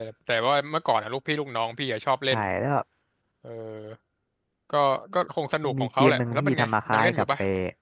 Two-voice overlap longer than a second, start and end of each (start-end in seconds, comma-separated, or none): 5.6-7.2